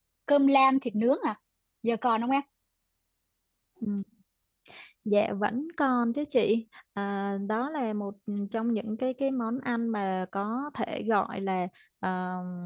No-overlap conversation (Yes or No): Yes